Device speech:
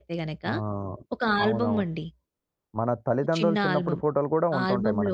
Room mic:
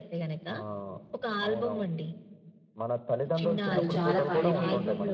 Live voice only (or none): కొంచెం కాదు చాలా పాడైపోయినాయి.